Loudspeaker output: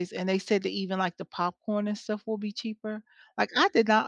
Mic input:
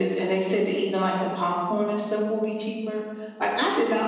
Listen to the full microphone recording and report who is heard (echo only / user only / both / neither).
echo only